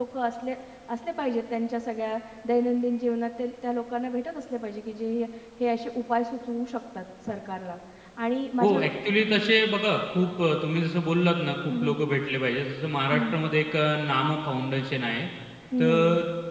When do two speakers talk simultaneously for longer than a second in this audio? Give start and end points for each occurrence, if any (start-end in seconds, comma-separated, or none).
none